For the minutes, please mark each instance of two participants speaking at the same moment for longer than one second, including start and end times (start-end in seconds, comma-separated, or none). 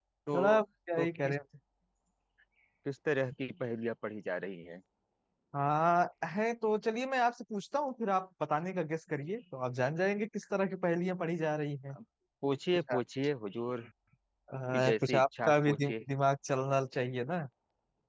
14.7-15.9